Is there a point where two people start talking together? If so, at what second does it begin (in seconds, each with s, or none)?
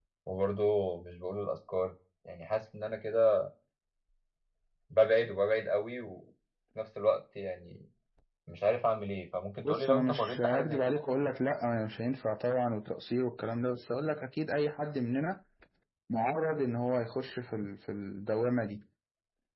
9.7 s